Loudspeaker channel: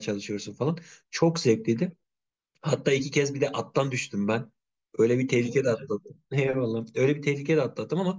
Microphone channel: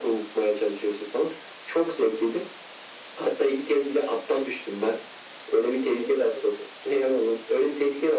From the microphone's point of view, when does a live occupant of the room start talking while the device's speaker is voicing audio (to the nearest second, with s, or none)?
none